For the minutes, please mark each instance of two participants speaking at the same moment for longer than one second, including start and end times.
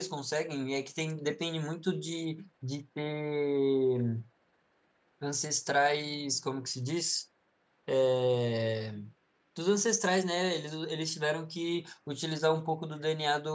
none

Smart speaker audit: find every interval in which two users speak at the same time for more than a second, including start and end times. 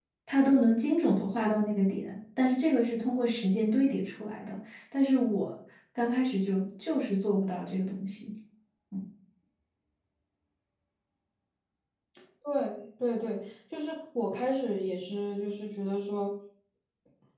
none

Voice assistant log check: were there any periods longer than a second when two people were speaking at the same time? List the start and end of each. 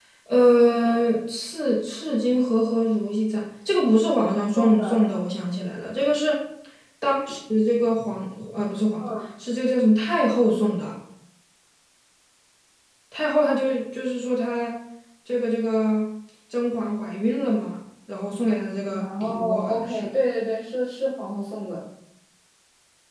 18.9-20.1

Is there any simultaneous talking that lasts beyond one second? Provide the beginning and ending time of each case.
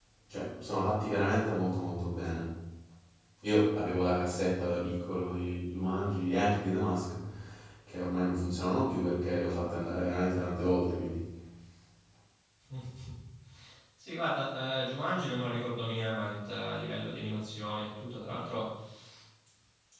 none

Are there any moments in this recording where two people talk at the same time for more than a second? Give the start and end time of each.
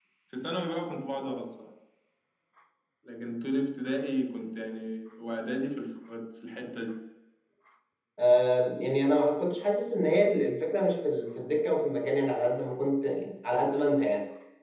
none

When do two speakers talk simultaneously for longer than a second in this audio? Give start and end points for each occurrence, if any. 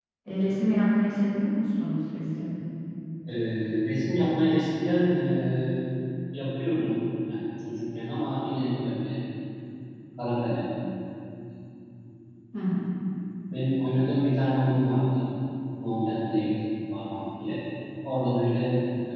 none

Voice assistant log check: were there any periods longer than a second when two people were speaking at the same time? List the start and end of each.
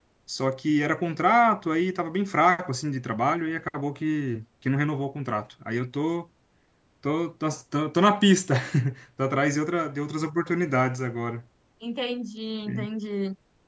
none

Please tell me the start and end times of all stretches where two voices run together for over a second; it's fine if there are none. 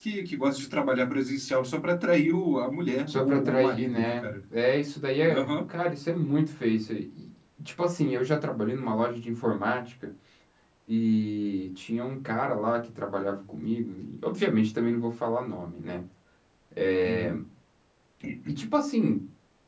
3.1-4.3

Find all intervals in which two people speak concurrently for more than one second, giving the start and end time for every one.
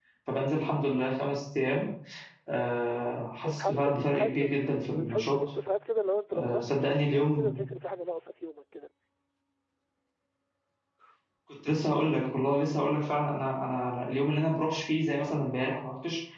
3.5-5.4, 6.3-7.5

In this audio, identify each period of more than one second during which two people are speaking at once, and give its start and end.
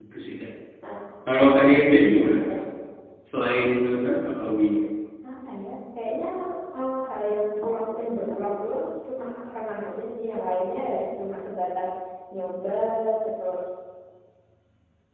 none

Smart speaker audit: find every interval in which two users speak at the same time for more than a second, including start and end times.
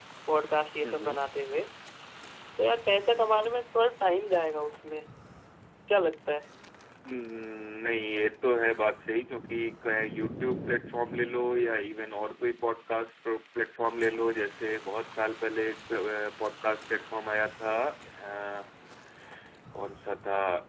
none

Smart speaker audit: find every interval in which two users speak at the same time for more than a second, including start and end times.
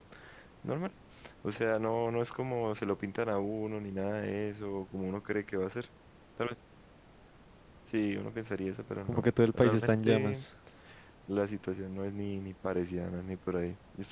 9.1-10.4

